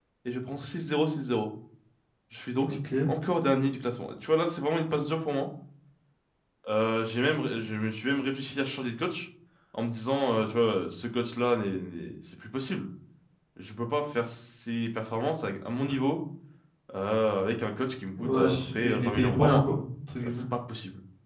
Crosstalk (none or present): present